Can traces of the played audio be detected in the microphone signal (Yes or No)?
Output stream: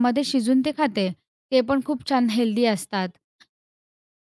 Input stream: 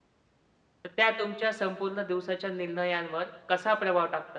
No